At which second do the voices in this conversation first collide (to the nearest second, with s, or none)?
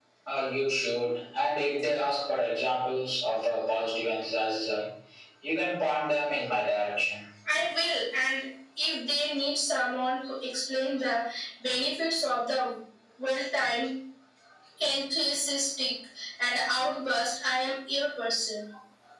none